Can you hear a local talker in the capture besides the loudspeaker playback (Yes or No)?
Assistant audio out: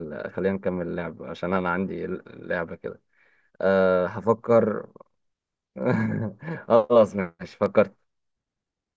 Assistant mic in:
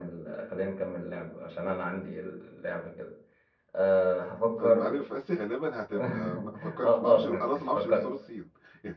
Yes